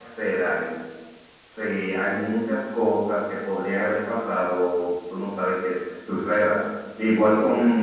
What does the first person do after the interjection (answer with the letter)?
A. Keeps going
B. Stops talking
A